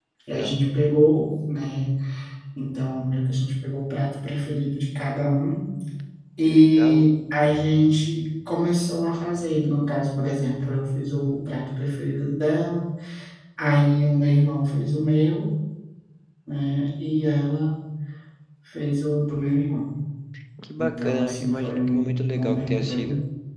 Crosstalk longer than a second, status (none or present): present